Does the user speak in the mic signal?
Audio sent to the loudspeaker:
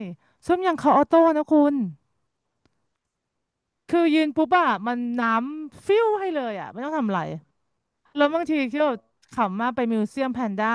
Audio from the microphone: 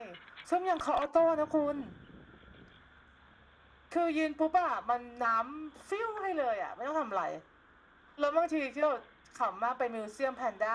No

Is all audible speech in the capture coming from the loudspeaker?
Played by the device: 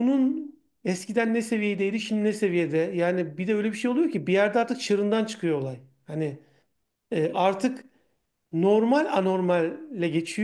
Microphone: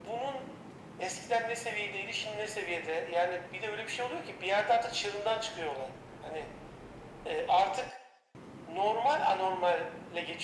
Yes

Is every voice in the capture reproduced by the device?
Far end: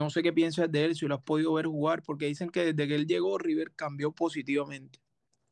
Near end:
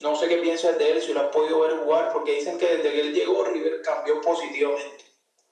Yes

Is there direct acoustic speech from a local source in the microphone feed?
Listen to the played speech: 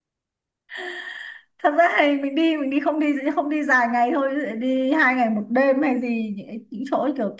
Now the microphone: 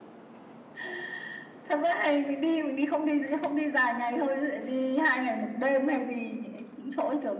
No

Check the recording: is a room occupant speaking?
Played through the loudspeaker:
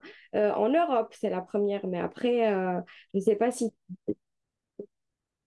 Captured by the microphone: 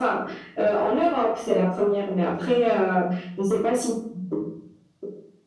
No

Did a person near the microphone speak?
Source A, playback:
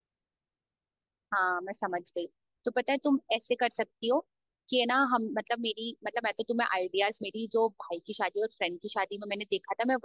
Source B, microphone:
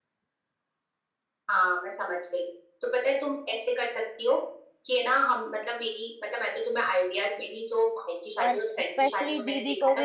Yes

